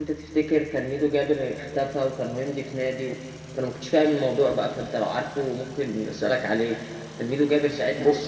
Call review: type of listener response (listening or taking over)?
listening